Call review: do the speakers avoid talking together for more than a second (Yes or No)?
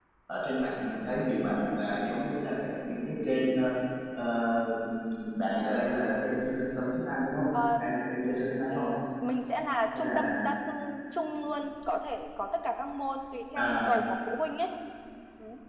Yes